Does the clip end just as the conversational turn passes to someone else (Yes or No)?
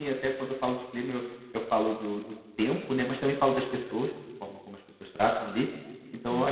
No